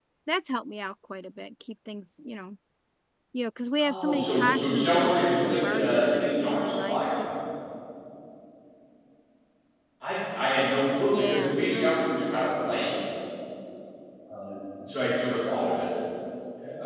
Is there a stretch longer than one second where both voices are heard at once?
Yes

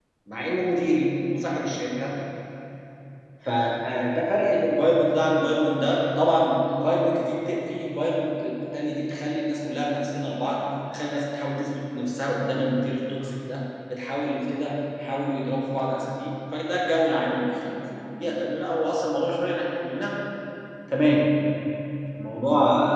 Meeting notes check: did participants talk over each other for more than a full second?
No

